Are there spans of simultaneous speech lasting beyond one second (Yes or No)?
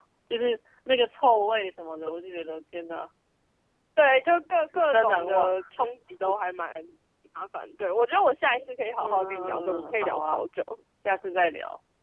Yes